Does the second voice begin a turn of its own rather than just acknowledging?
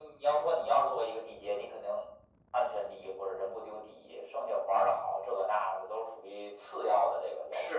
Yes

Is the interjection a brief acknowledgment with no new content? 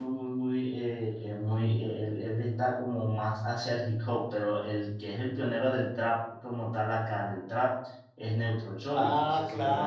No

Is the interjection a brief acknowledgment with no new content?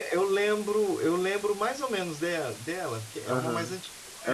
No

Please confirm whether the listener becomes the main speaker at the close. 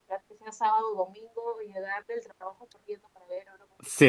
Yes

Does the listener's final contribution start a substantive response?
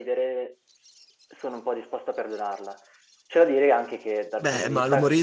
Yes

